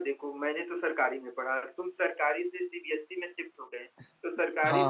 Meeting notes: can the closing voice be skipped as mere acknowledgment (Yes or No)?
Yes